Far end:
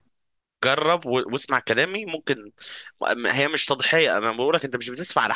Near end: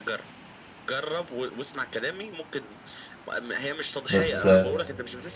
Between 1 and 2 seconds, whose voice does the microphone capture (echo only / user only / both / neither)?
echo only